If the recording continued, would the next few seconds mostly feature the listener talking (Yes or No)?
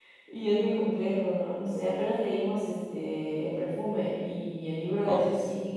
No